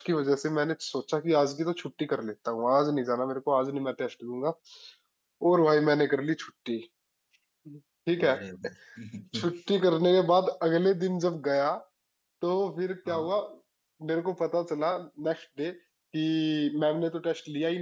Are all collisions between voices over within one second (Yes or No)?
Yes